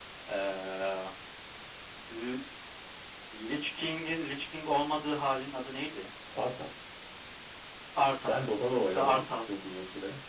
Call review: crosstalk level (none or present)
present